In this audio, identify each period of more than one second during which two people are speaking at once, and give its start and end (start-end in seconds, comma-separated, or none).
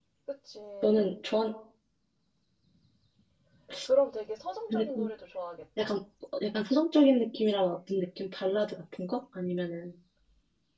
none